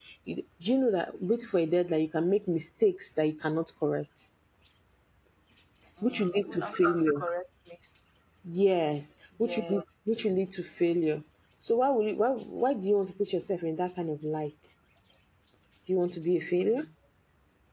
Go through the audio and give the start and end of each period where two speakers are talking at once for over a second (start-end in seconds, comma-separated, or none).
6.0-7.2